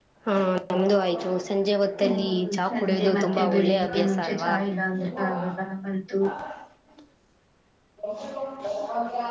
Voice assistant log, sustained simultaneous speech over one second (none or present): present